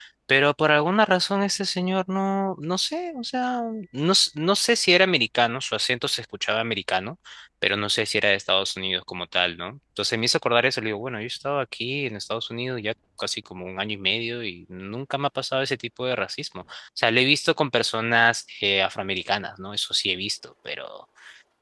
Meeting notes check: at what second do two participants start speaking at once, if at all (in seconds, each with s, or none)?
none